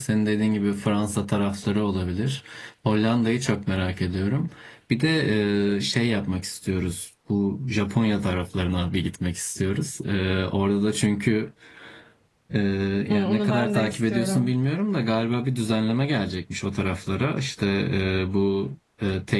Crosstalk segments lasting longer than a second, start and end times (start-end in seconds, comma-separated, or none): 13.1-14.6